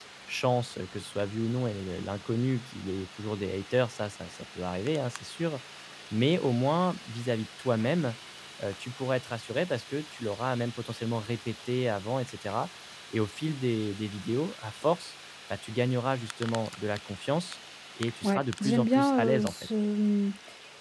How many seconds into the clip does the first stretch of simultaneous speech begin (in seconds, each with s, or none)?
18.2 s